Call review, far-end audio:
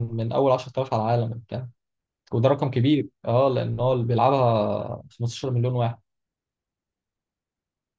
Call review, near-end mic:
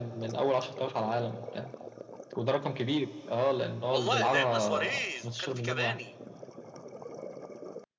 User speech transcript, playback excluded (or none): والله لعبنا سواريز وكان في كافاني